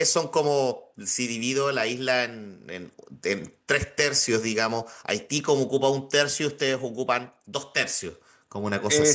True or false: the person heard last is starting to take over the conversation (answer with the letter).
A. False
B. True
B